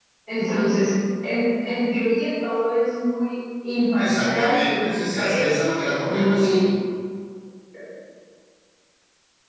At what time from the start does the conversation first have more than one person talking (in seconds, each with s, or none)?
4.0 s